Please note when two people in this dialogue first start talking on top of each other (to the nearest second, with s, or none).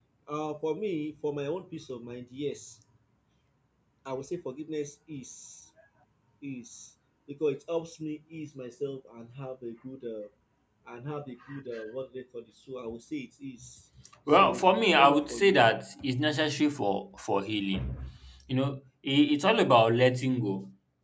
14 s